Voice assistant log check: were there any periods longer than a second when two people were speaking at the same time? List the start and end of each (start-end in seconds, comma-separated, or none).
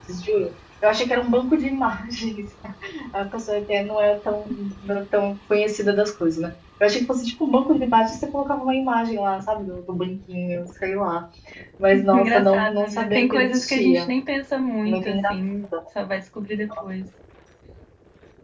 12.1-14.1